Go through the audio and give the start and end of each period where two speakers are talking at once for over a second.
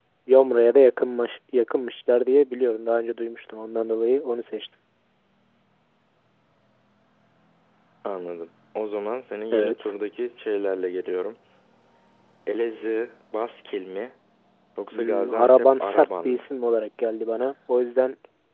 14.9-16.5

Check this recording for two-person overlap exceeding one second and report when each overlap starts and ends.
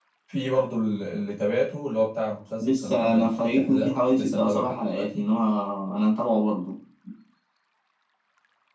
2.6-5.3

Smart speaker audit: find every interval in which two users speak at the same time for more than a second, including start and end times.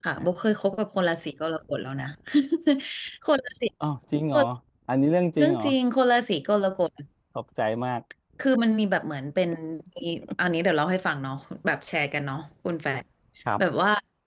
none

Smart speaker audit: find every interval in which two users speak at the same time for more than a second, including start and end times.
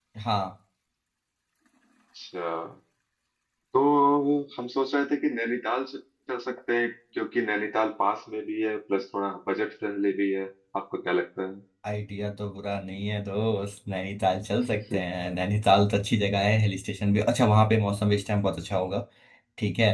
none

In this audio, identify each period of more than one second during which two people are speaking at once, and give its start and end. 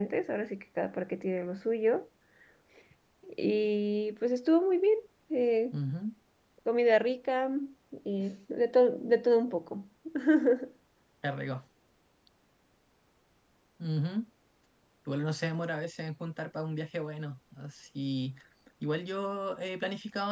none

